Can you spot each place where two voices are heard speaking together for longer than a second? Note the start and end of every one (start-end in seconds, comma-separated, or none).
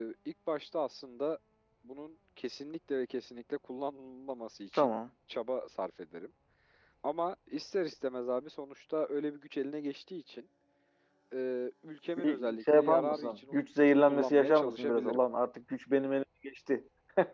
12.2-15.2